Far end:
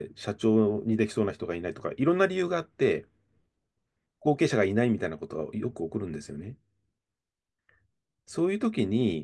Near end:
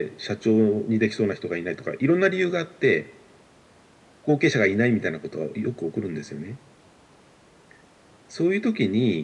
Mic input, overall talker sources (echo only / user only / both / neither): echo only